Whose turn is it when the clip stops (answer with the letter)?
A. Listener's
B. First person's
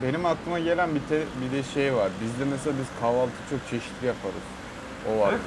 A